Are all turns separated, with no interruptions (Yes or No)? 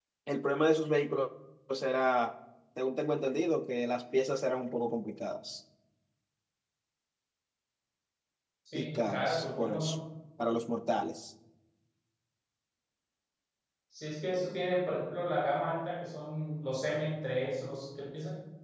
No